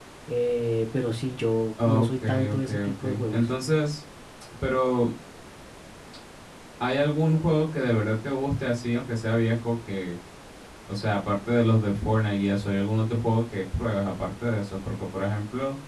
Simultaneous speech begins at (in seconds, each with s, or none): 1.8 s